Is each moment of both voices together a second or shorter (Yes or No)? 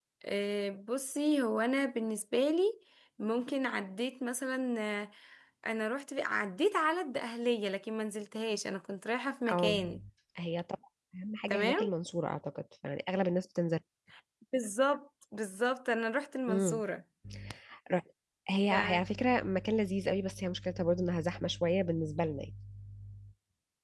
Yes